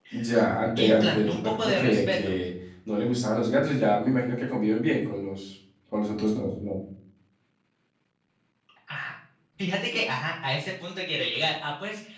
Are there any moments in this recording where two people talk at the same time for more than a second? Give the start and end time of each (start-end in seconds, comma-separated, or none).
0.8-2.3